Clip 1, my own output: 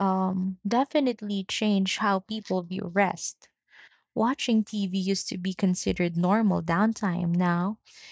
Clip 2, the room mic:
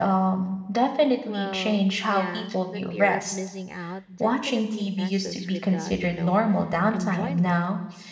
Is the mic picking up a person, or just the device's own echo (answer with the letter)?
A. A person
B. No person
A